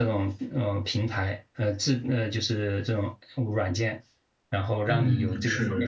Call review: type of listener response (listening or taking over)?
taking over